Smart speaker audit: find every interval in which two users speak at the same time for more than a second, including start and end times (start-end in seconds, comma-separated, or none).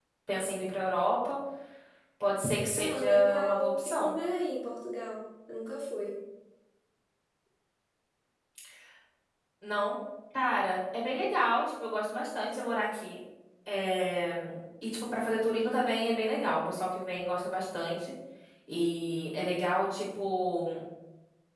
2.8-4.2